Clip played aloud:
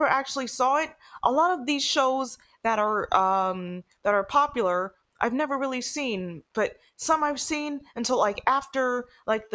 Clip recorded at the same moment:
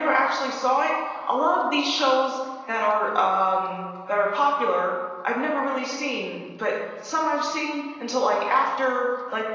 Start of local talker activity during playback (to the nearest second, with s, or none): none